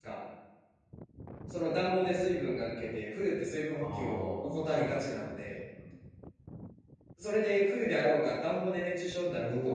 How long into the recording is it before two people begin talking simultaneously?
3.9 s

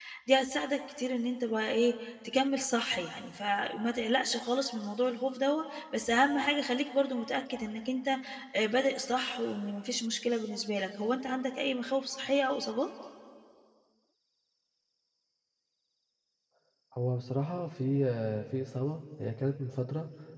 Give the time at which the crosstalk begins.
none

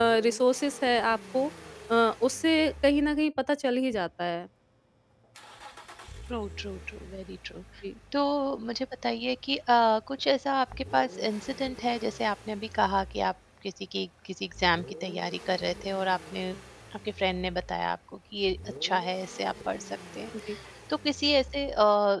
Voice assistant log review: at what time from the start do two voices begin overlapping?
none

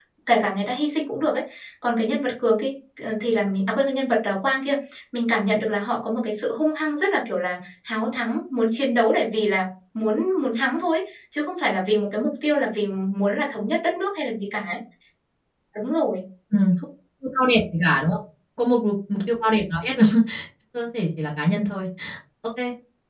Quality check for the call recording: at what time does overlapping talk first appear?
none

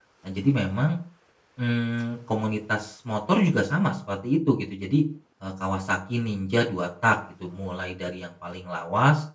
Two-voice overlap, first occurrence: none

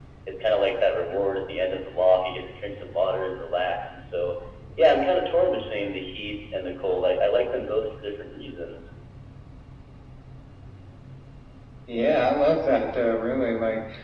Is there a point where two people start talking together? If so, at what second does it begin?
none

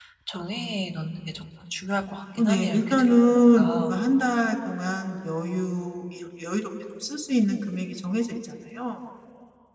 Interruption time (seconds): 2.4 s

